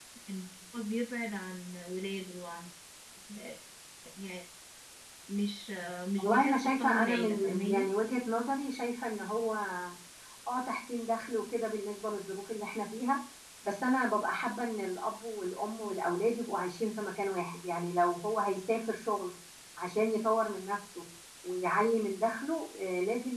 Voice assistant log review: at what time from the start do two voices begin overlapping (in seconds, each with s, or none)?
6.2 s